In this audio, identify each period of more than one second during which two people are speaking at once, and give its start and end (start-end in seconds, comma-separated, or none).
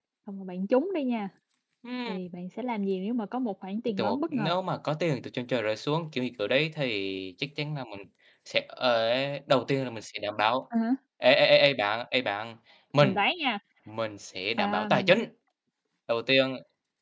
none